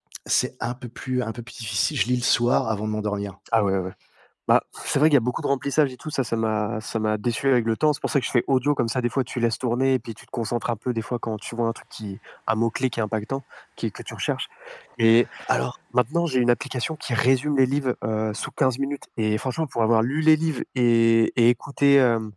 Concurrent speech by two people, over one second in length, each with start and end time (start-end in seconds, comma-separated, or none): none